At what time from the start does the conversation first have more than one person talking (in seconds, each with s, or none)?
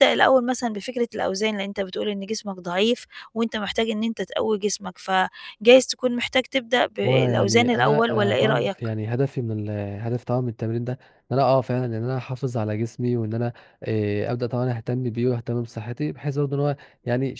7.0 s